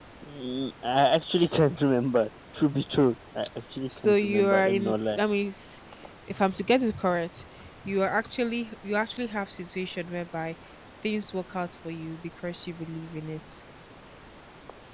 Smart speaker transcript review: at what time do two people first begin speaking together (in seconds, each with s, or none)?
3.9 s